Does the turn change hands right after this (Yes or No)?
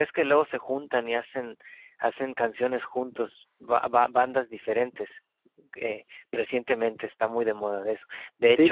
No